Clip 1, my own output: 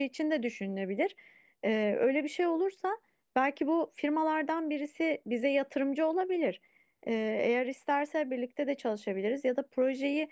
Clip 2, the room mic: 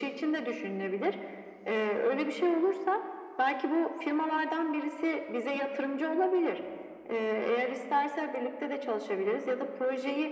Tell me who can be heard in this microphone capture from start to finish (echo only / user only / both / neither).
echo only